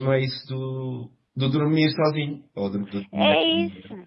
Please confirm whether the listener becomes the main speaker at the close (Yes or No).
Yes